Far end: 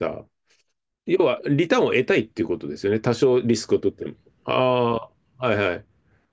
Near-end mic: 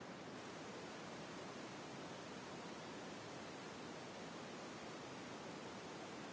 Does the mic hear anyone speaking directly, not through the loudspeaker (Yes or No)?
No